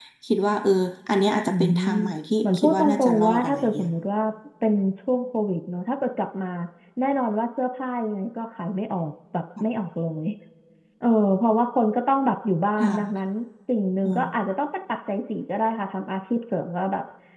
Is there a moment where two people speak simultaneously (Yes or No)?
Yes